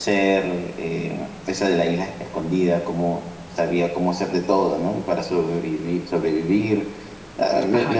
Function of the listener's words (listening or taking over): taking over